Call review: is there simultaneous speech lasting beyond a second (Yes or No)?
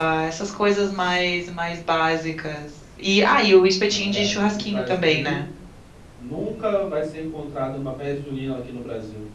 Yes